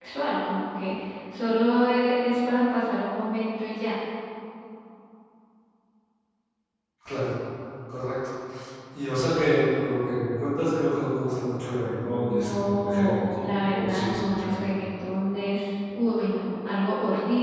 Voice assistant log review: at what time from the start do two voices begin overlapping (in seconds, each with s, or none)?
12.0 s